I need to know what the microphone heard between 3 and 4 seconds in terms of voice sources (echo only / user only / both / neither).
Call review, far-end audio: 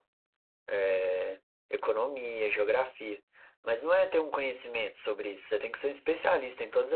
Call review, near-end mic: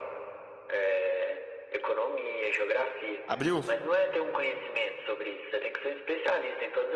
both